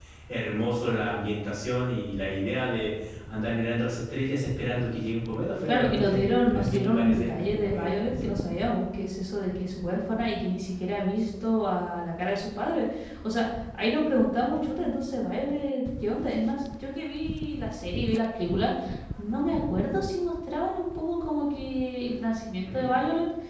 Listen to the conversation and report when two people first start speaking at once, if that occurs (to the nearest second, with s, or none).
6 s